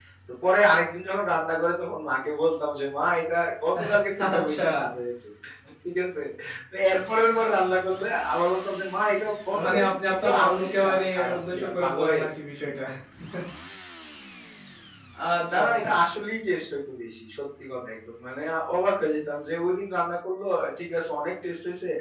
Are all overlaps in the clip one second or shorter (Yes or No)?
No